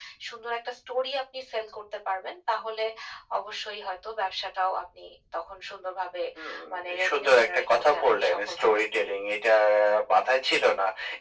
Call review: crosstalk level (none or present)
present